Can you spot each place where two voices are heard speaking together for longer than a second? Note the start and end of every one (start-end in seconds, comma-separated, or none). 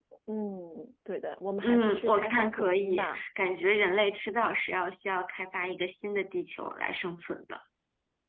1.6-3.2